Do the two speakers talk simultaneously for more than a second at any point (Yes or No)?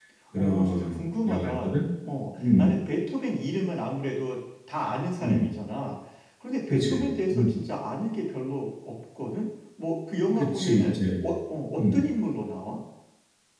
Yes